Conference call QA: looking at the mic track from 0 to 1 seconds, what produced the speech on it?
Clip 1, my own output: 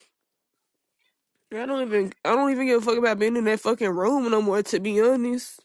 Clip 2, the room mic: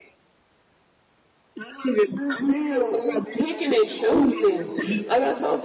neither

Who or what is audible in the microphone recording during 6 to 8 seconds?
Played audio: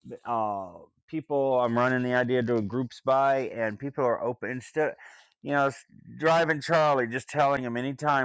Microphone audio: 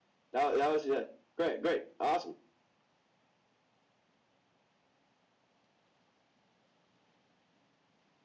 neither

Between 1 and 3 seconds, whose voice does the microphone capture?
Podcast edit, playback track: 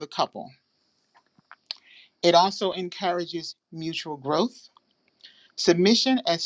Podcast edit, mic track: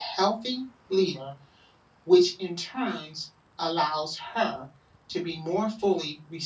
user only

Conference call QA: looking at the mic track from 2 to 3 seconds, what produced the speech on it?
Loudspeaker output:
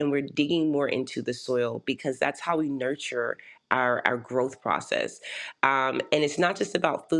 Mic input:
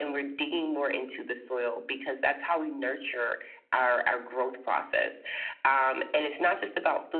echo only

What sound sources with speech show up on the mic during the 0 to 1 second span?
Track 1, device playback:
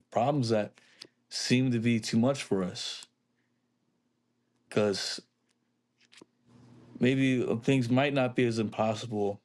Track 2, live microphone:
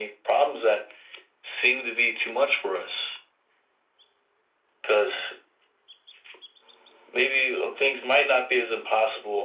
echo only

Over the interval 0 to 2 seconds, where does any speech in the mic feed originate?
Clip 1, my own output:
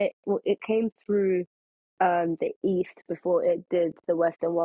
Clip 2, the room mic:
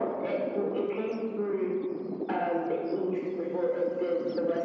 echo only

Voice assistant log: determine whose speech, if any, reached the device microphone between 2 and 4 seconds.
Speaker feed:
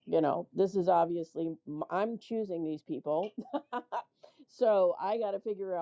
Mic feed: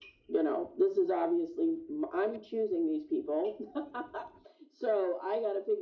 echo only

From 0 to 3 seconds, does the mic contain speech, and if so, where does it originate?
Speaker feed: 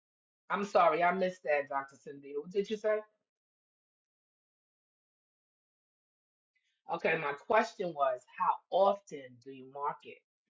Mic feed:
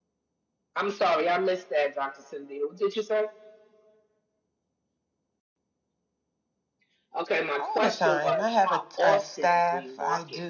echo only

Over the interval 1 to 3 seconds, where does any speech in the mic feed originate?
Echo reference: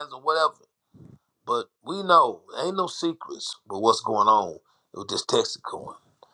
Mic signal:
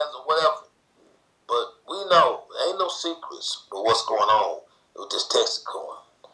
echo only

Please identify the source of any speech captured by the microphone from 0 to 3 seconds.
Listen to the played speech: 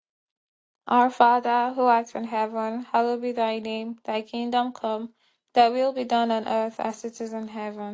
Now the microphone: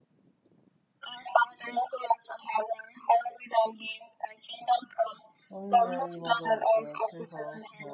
echo only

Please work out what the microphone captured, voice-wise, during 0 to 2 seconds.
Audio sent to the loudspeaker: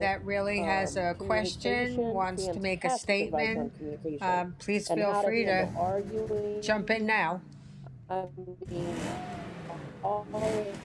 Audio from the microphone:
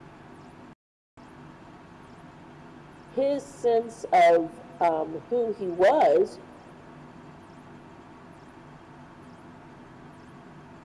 neither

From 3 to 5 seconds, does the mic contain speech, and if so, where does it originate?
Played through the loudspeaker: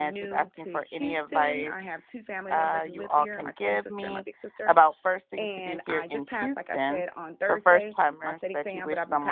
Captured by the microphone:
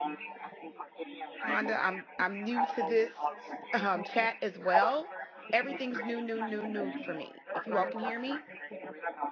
both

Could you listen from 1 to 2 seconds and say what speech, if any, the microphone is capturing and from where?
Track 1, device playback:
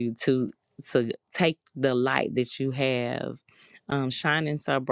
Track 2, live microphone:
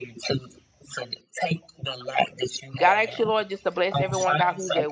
echo only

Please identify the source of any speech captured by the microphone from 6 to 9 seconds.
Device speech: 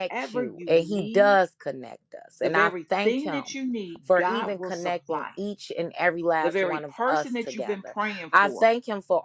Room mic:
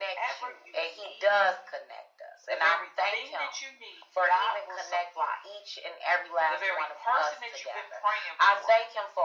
echo only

